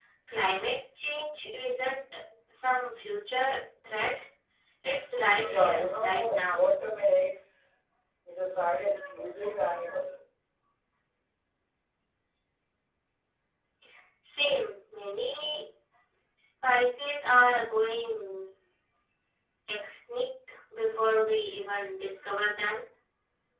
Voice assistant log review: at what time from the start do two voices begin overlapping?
5.4 s

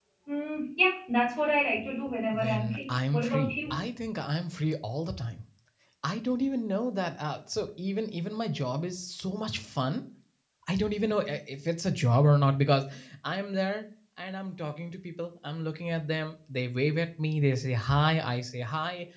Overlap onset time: 2.3 s

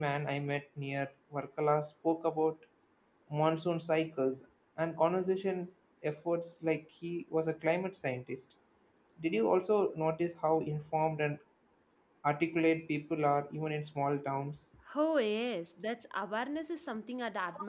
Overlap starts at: none

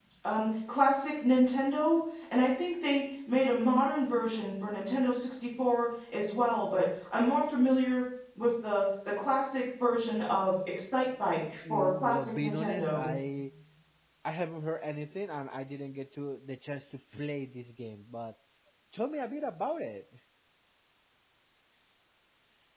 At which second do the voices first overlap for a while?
11.6 s

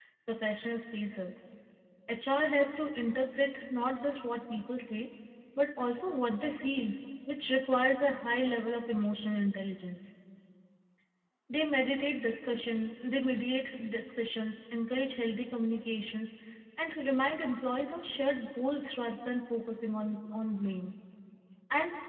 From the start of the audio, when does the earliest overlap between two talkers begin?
none

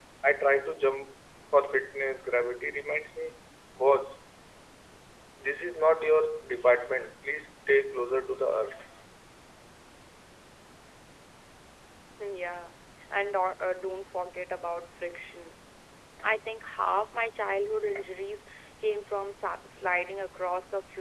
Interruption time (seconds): none

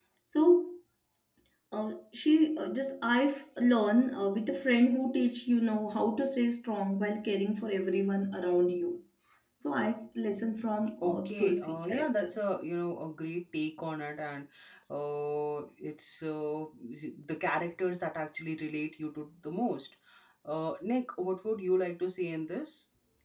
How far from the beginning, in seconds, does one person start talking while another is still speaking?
11.0 s

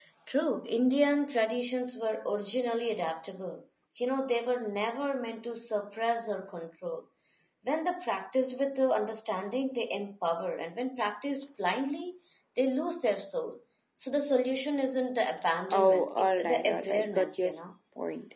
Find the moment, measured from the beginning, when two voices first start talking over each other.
15.7 s

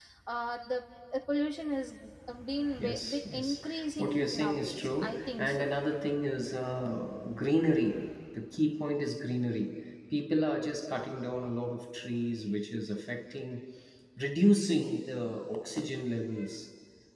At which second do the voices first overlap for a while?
2.8 s

